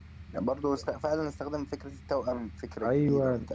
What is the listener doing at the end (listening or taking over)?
taking over